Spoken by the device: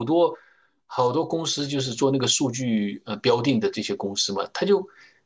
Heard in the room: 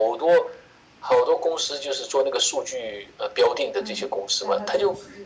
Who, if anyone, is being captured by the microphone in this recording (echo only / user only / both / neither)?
both